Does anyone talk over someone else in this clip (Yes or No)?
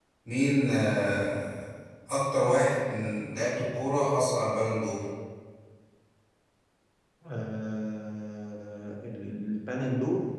No